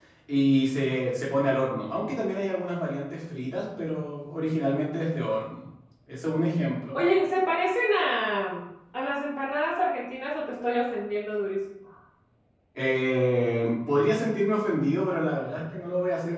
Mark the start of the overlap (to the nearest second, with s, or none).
none